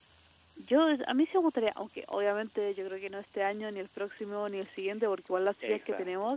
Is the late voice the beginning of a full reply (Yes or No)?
No